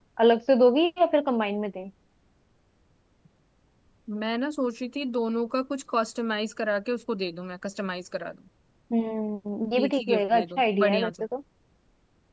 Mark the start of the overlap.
9.8 s

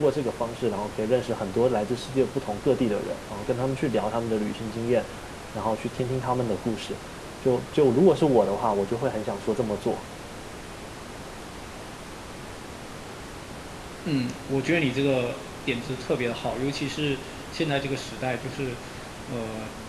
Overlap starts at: none

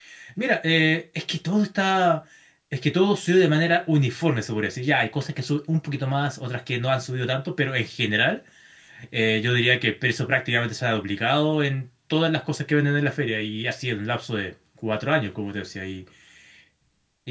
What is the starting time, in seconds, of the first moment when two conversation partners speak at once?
none

